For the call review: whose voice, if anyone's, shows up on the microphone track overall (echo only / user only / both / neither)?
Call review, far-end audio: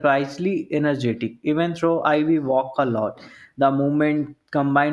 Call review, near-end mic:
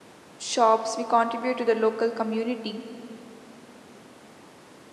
user only